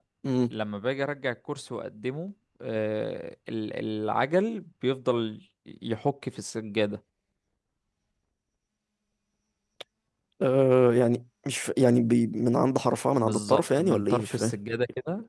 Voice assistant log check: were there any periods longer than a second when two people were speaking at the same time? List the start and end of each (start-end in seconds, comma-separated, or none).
13.2-14.5